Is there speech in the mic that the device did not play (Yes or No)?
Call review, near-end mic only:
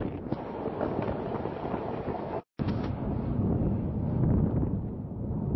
No